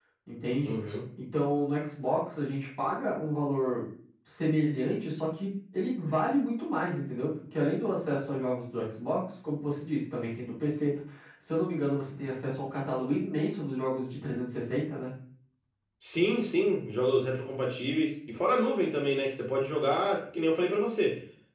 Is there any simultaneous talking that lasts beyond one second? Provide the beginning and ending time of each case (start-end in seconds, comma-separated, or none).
none